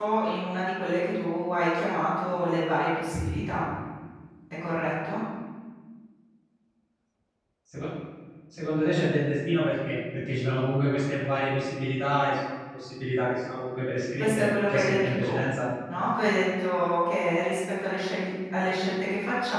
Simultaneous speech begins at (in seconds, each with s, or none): 14.2 s